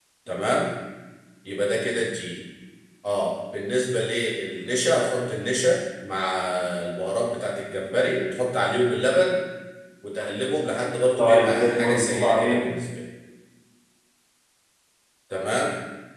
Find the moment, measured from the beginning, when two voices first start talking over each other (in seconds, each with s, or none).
11.2 s